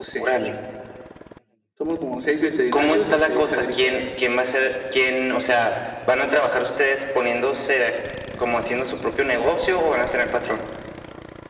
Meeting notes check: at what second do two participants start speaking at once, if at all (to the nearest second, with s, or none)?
3 s